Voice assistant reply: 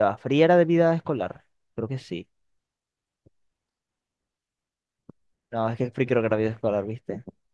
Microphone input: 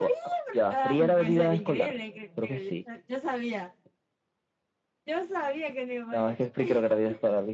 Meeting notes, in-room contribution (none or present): present